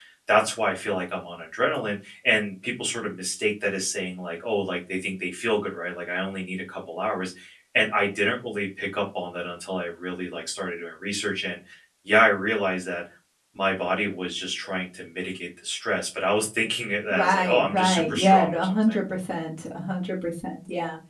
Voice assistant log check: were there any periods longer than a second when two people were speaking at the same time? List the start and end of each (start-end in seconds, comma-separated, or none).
17.1-19.0